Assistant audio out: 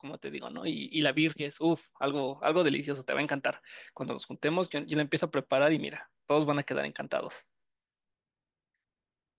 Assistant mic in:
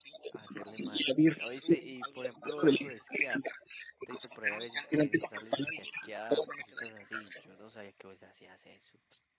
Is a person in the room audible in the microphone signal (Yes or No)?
Yes